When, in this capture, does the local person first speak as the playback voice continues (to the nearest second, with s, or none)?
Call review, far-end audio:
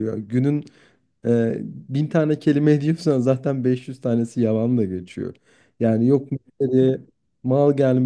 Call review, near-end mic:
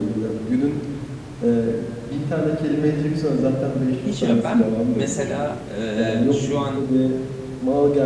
4 s